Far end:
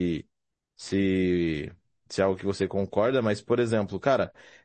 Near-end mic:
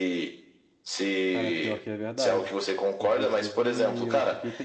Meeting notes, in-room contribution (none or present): present